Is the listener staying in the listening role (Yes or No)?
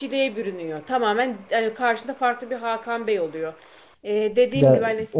No